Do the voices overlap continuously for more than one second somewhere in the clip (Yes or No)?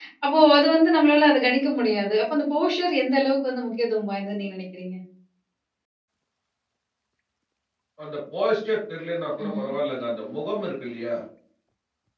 No